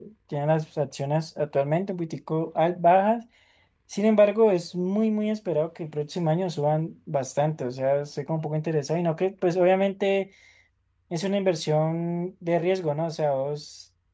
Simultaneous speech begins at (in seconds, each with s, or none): none